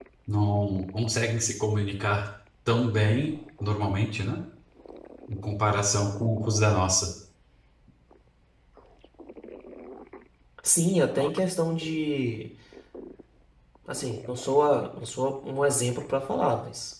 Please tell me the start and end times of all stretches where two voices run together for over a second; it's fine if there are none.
none

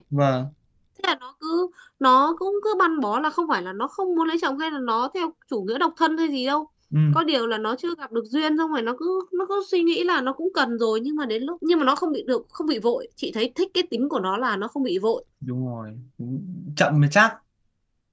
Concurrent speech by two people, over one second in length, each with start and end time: none

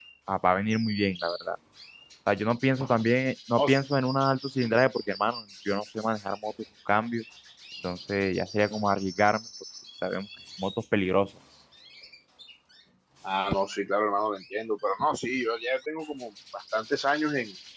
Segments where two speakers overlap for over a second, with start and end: none

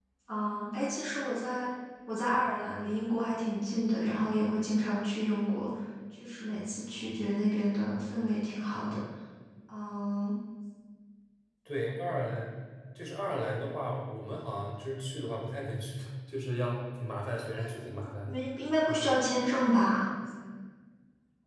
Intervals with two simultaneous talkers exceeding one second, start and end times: none

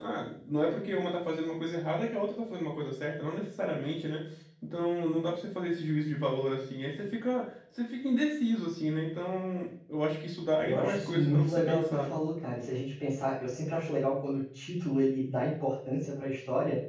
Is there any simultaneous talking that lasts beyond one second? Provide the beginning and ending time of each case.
10.6-12.1

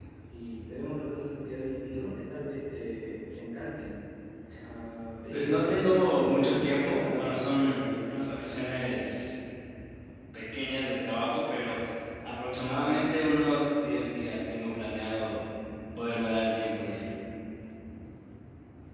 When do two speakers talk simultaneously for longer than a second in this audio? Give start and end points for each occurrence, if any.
5.3-8.1

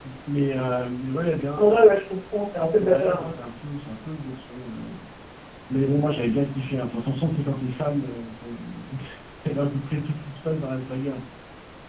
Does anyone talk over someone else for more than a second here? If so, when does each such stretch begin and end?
none

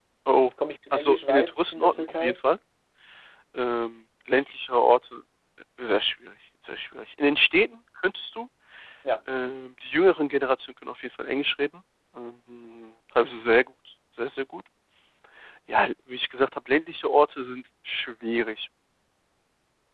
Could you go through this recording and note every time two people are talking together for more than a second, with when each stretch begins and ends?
0.9-2.4

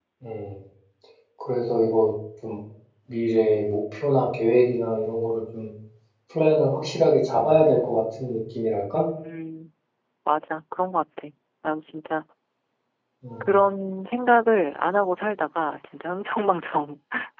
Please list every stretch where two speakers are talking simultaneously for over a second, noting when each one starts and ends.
none

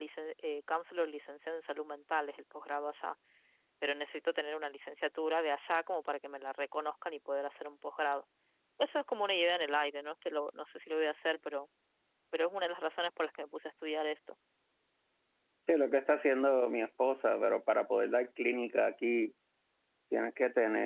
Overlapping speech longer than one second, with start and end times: none

